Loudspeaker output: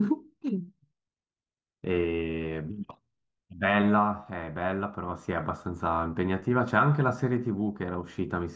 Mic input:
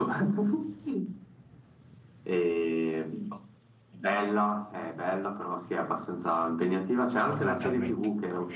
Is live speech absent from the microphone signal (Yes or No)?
No